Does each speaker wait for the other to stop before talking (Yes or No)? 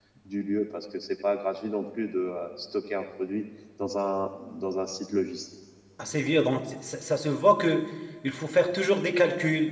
Yes